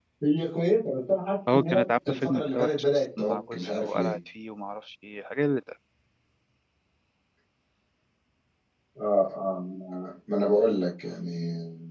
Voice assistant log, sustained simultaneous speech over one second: present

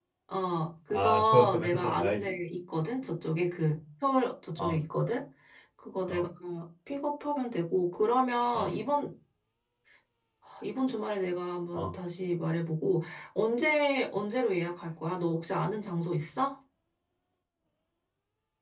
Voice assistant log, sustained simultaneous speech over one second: present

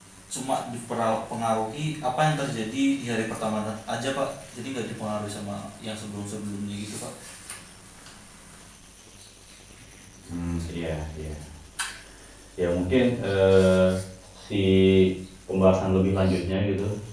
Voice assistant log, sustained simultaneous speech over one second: none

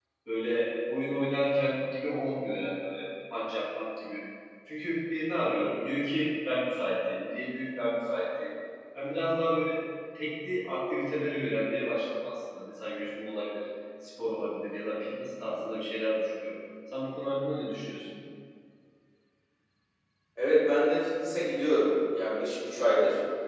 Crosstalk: none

